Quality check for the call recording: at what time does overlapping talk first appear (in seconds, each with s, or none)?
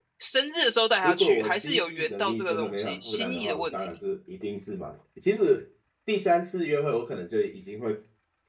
1.0 s